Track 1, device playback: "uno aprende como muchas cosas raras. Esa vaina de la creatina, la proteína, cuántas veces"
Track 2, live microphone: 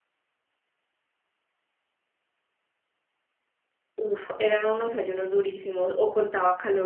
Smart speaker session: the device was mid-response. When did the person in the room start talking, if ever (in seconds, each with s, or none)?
4.0 s